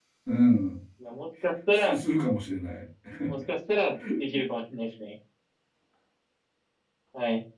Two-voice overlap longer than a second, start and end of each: none

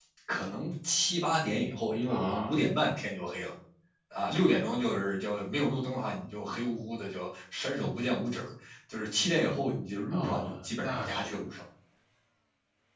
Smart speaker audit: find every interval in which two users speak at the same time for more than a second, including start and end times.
10.1-11.3

